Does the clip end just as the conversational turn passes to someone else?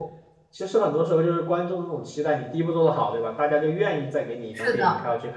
No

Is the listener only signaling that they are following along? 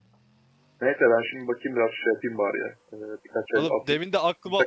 No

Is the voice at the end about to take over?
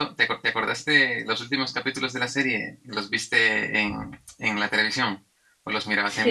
Yes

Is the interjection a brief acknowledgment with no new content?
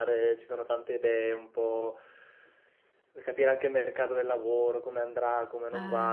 Yes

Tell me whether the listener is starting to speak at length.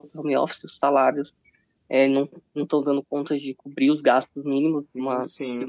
No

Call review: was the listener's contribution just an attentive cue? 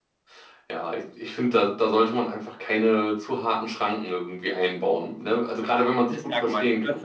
No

